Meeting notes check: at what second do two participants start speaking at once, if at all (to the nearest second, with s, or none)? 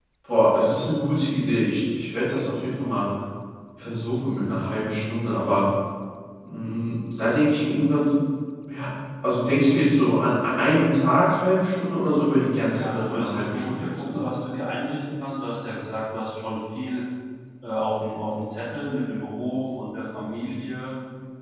13 s